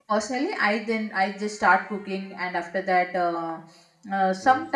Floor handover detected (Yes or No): No